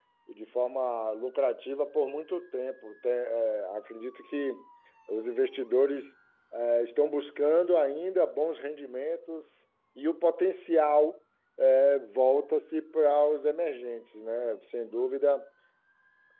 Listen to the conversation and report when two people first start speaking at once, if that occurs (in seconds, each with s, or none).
none